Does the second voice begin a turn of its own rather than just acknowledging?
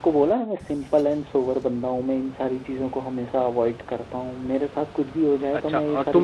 Yes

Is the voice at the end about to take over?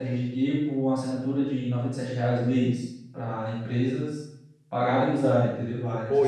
Yes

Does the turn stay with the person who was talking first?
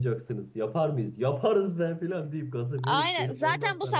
No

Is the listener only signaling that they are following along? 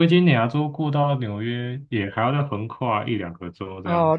No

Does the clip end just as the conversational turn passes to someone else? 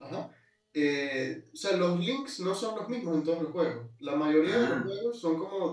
No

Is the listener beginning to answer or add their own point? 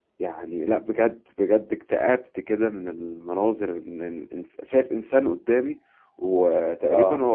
No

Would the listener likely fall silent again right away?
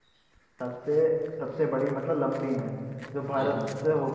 Yes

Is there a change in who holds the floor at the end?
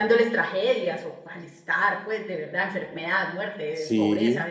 No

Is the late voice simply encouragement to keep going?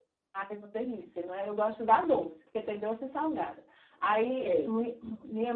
Yes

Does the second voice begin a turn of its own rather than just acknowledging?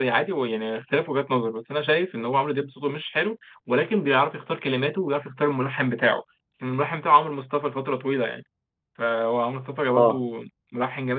No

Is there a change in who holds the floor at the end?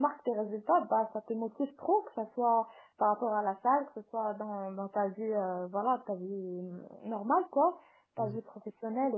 No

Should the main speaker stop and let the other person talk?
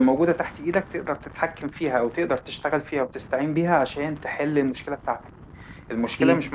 No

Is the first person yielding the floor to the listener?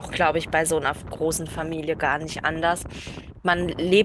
No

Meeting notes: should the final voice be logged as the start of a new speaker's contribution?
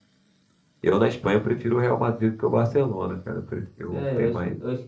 Yes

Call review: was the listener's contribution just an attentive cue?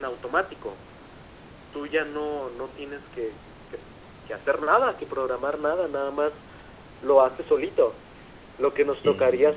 Yes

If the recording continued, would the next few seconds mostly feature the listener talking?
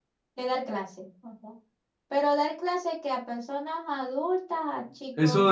Yes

